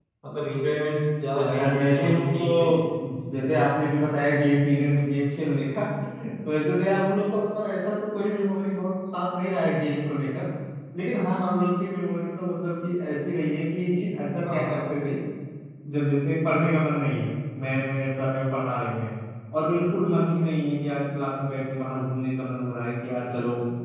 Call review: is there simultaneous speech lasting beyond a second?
Yes, from 1.4 s

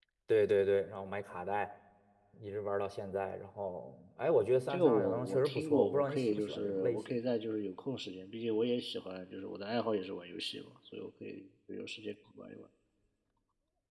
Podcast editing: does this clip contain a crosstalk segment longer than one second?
Yes, from 4.7 s

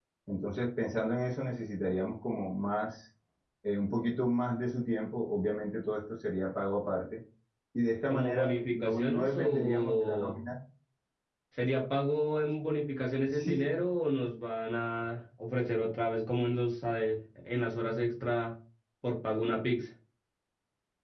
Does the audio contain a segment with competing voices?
Yes, from 8.1 s

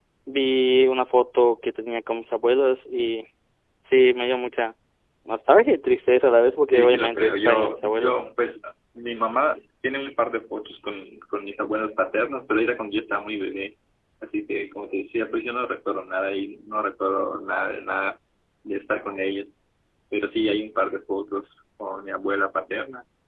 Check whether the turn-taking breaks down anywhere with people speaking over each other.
Yes, from 6.7 s

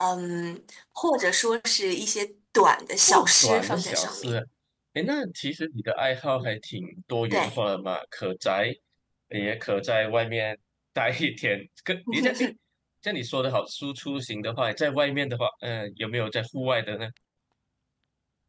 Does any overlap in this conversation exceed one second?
Yes, from 3.1 s

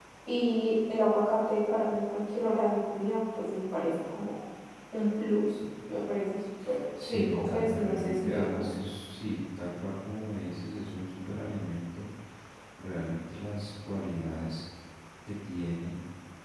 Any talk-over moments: Yes, from 7.0 s

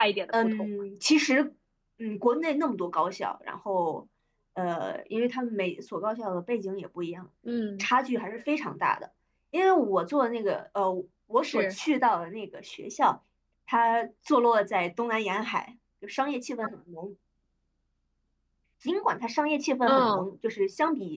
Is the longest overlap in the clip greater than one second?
No

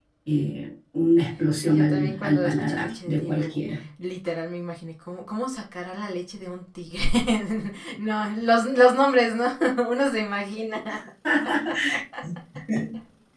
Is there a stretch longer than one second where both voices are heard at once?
Yes, from 1.6 s

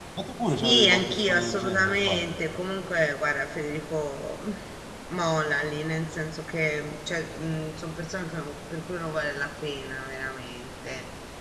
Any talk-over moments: Yes, from 0.6 s

